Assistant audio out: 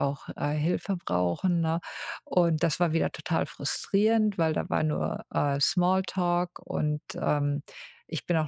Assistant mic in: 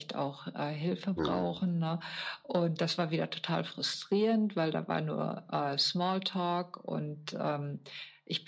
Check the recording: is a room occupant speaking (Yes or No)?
Yes